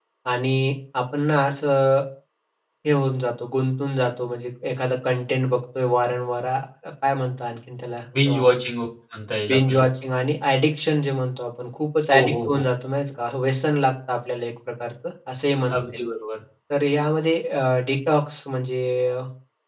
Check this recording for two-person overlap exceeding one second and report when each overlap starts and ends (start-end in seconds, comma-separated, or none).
none